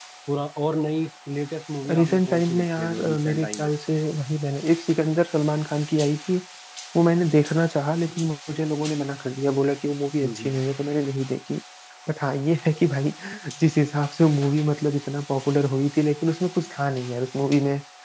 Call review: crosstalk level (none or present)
present